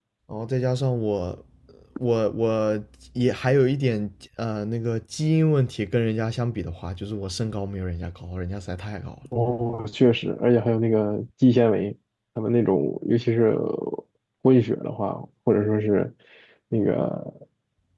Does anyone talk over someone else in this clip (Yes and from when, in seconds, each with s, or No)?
No